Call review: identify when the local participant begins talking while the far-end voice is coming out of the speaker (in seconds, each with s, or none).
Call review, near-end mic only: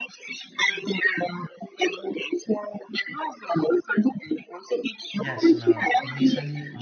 5.1 s